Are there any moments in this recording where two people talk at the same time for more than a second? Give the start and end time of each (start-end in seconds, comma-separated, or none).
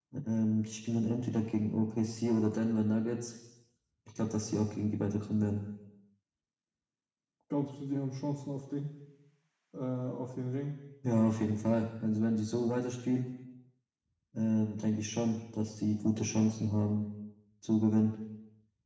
none